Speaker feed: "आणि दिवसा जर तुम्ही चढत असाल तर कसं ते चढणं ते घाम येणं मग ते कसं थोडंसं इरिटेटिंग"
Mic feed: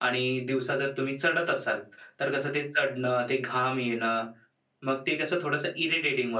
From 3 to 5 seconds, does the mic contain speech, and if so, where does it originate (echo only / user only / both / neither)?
echo only